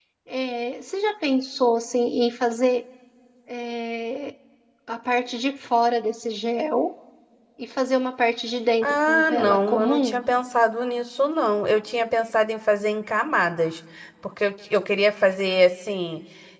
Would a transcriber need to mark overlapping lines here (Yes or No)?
Yes